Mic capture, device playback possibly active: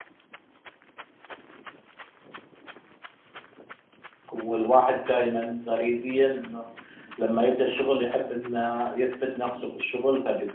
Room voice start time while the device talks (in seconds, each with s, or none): 4.3 s